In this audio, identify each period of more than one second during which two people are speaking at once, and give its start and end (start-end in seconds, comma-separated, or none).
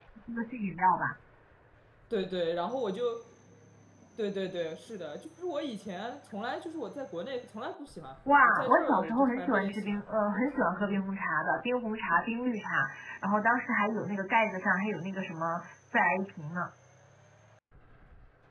8.3-10.0